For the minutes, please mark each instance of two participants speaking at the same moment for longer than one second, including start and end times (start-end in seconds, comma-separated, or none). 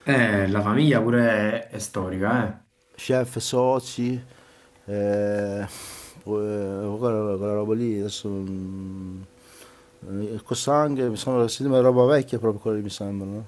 none